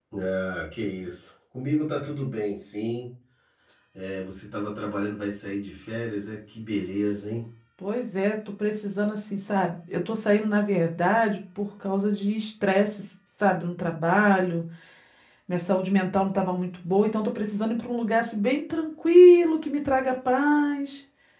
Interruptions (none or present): none